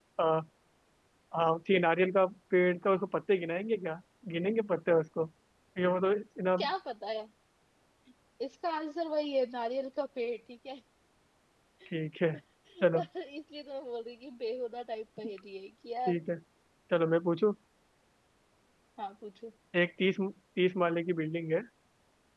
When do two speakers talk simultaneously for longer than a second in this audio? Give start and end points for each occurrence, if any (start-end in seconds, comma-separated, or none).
none